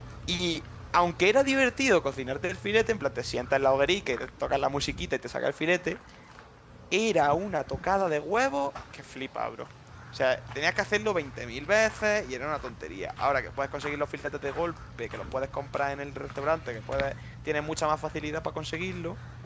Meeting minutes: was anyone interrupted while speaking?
No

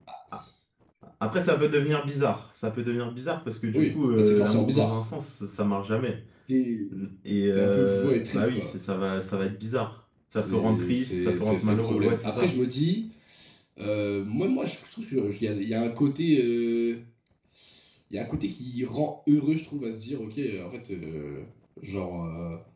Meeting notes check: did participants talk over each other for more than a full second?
Yes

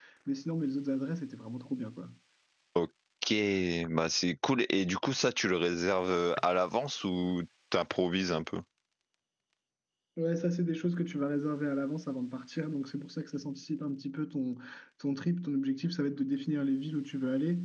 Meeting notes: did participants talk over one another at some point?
No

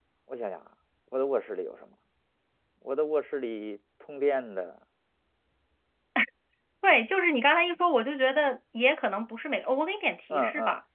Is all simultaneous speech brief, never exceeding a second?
Yes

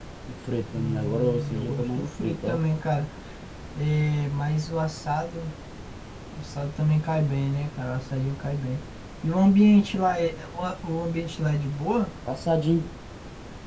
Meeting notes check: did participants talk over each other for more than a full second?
Yes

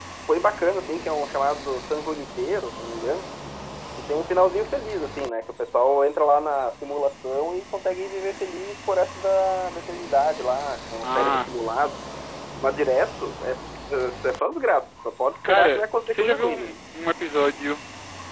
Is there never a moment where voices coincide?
No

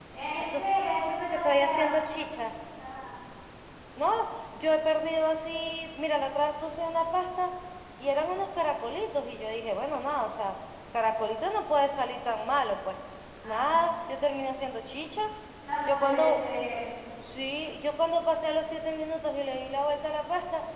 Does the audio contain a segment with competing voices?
Yes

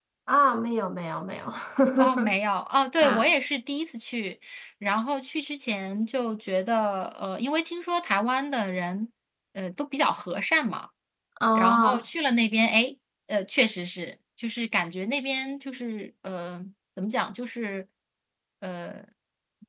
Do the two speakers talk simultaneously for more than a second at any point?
No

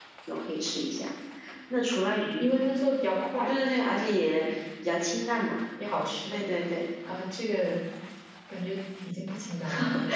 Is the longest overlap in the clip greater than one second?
No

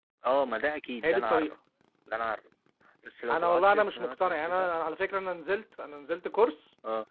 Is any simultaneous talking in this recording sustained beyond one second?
Yes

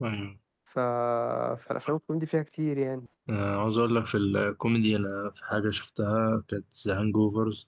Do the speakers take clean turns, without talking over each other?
Yes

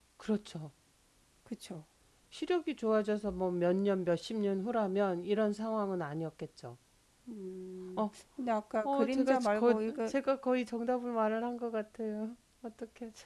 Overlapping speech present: Yes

